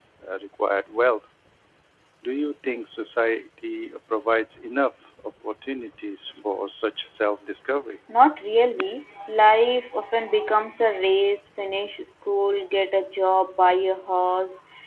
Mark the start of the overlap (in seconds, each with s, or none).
none